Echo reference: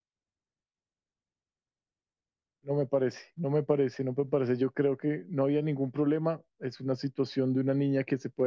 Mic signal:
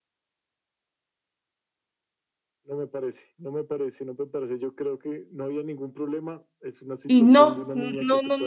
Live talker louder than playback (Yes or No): Yes